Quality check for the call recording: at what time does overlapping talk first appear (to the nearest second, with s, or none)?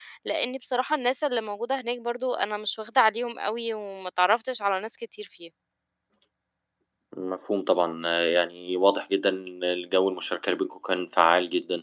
none